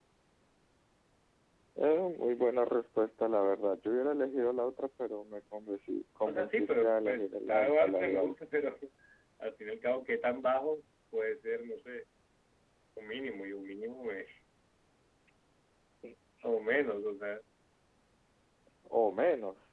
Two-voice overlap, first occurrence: 6.2 s

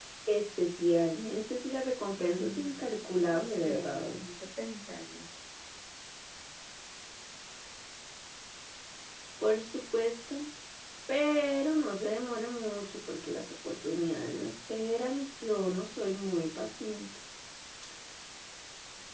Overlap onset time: 2.2 s

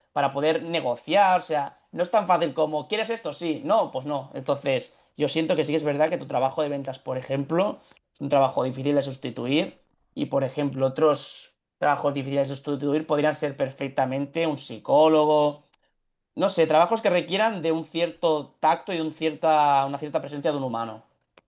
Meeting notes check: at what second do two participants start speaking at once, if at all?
none

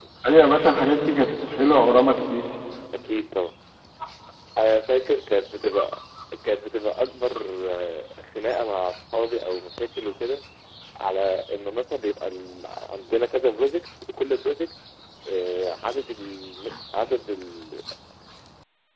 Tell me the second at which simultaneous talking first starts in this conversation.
none

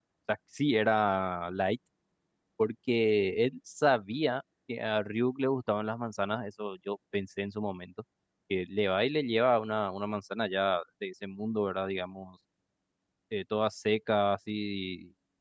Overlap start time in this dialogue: none

